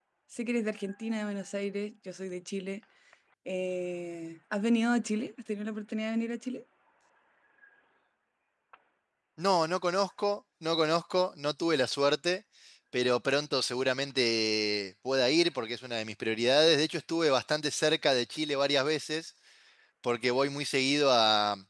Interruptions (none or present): none